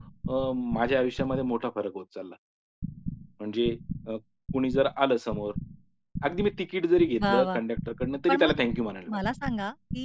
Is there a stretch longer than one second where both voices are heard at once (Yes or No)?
No